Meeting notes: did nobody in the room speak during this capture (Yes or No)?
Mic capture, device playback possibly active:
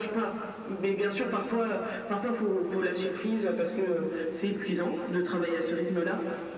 Yes